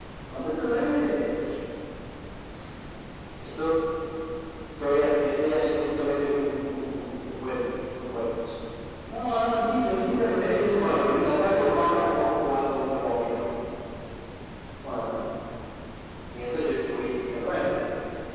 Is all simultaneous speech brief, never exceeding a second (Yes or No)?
No